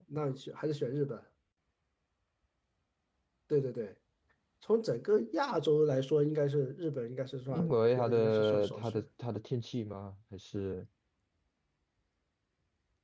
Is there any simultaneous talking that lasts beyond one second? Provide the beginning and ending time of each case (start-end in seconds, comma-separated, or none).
7.5-9.0